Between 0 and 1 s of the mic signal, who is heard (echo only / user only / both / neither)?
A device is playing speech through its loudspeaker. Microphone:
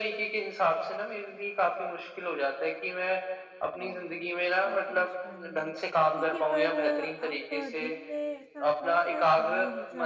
echo only